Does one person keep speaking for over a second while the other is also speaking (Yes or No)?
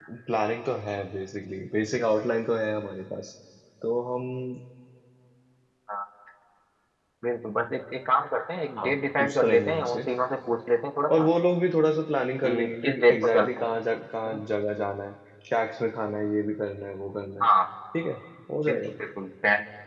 Yes